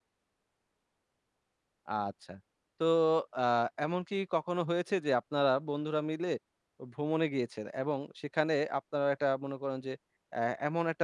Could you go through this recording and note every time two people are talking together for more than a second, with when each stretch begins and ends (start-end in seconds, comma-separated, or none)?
none